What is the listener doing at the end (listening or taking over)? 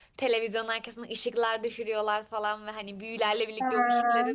listening